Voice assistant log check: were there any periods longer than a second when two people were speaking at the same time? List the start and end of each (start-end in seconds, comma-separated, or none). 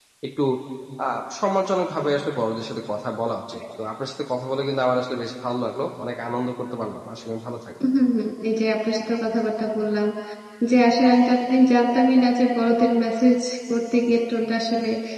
none